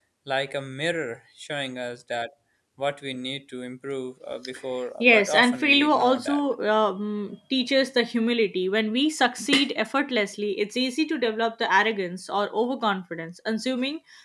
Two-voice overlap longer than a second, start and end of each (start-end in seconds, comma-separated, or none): 5.0-6.4